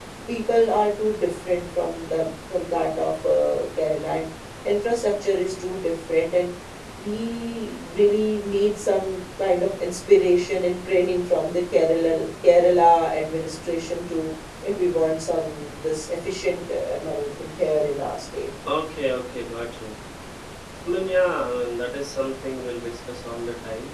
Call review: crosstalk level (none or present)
none